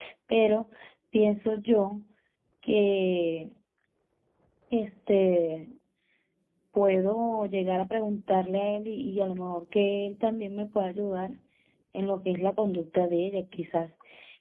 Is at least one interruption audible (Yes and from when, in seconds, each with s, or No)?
No